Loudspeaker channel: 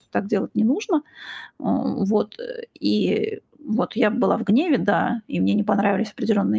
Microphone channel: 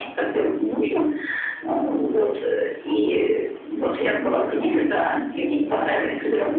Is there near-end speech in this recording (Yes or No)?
No